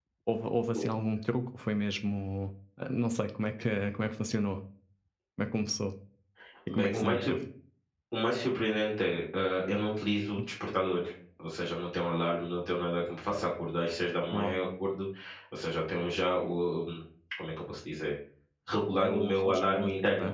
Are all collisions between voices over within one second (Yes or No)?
No